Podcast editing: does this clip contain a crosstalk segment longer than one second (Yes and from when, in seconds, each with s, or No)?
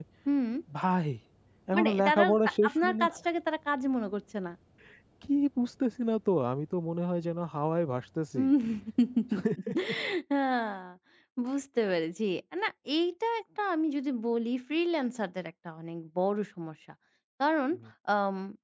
Yes, from 1.8 s